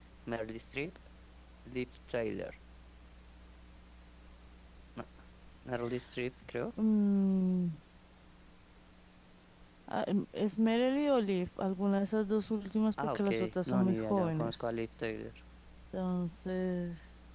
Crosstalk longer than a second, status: present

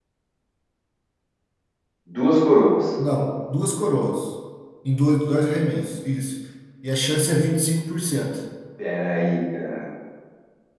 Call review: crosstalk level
none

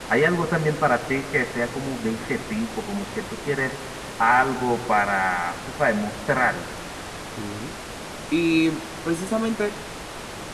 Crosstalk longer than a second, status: none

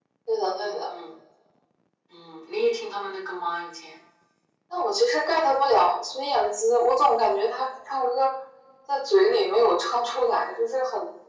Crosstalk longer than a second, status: none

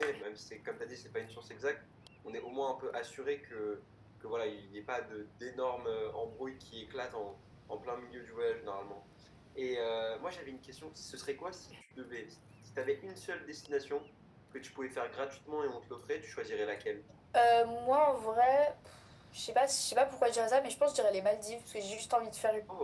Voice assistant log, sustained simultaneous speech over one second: none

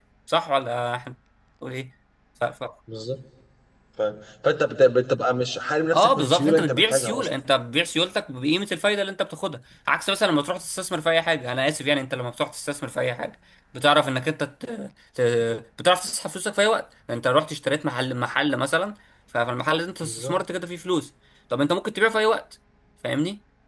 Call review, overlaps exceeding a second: present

